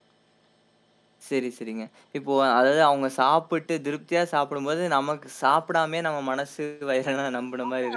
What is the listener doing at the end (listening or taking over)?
taking over